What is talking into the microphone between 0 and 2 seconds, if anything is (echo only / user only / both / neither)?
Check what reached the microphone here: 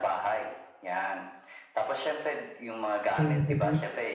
echo only